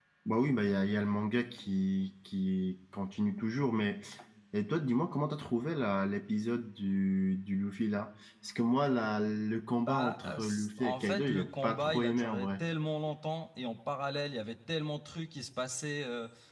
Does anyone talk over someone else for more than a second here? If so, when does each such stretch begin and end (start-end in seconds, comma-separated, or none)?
9.8-12.6